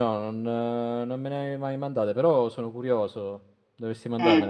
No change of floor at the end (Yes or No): No